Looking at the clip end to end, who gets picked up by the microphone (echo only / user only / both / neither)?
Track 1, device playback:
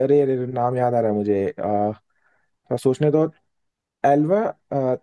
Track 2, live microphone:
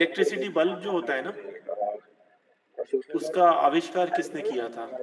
both